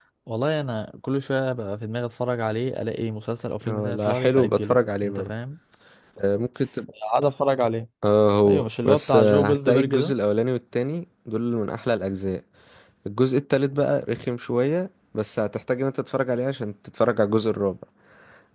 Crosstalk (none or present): present